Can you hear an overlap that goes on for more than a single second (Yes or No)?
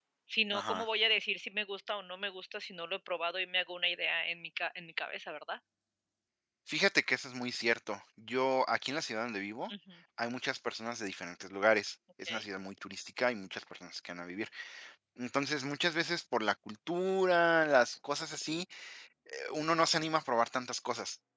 No